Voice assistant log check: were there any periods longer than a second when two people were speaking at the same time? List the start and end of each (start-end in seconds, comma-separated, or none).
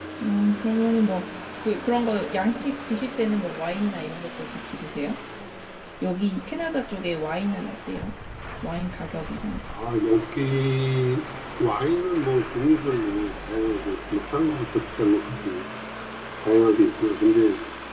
none